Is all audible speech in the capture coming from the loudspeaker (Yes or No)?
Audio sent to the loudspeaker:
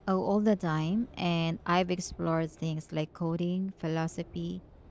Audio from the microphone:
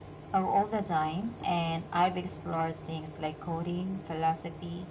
Yes